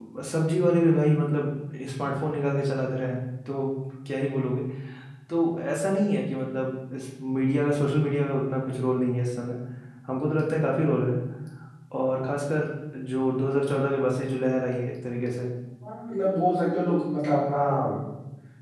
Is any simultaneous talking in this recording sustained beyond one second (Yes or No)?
No